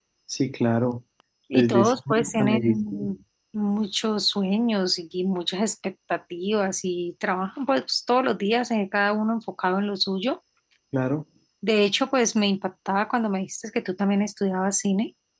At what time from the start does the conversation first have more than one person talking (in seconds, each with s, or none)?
1.5 s